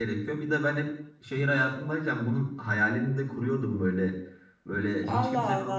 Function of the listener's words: taking over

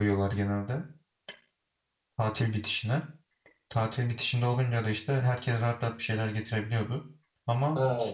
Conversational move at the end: taking over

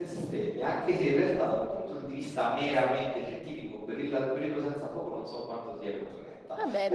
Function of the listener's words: taking over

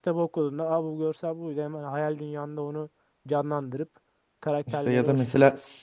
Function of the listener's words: taking over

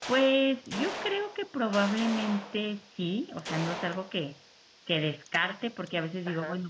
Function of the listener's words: listening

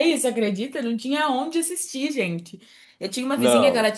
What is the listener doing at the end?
listening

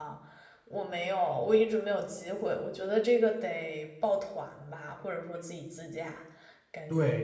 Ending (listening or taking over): taking over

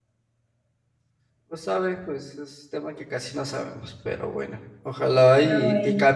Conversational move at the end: listening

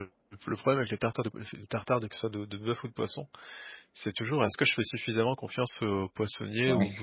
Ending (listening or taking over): listening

